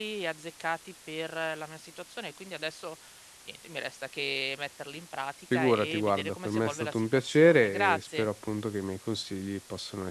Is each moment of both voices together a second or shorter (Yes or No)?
No